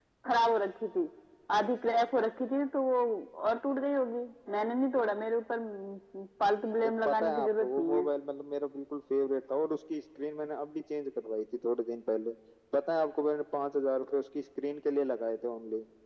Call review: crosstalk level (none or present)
present